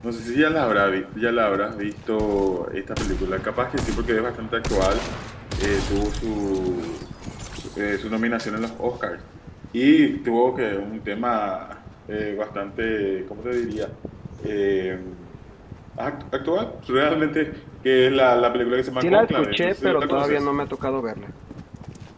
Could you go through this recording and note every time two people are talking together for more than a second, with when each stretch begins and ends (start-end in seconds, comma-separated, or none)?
19.0-20.4